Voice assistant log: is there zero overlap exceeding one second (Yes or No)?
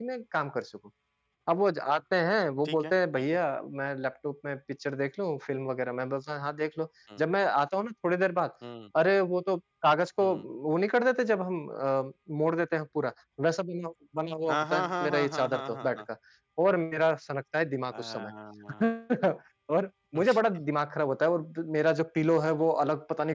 No